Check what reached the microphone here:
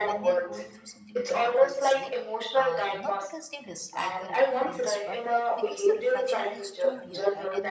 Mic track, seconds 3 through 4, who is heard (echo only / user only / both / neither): both